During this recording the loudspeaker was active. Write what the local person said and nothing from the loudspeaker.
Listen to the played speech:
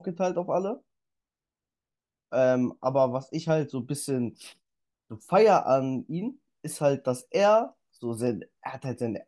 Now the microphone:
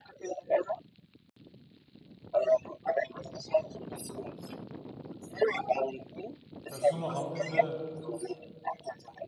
Weißt du noch am Ende,

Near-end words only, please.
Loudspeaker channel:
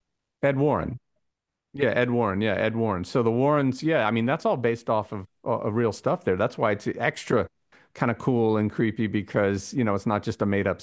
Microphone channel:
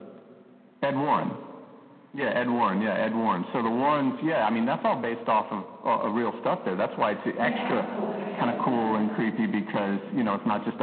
Yeah. Oh gosh, I love that. And it's so-

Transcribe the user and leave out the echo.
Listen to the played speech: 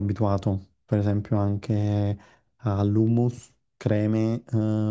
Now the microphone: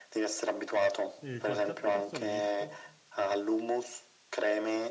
E qualche altro passo che hai visto?

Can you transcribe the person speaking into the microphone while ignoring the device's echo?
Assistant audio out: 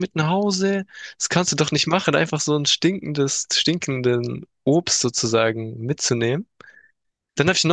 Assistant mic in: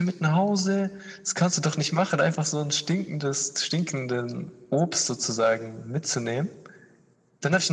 none

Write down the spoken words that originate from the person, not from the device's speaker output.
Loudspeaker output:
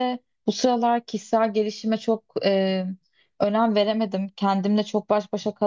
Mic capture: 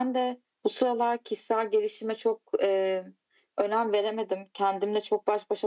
none

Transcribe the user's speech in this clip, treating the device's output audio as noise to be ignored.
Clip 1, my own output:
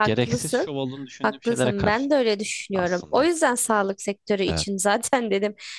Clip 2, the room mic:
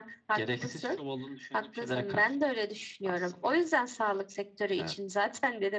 none

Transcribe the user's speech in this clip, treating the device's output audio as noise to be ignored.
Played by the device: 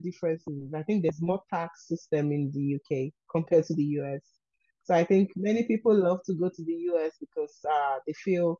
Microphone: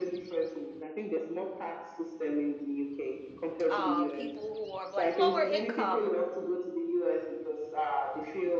um people who are of, like lower income,

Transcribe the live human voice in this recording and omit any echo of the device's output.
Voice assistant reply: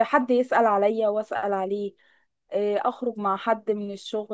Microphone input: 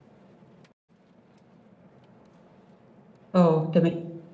اه تمام

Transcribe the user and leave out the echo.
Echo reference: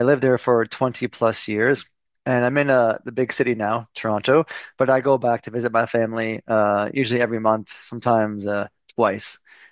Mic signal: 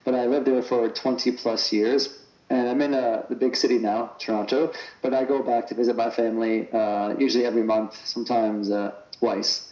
none

